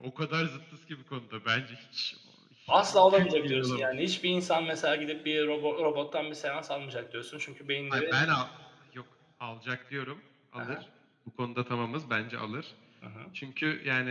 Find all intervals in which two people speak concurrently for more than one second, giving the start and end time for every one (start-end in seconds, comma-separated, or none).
2.7-3.9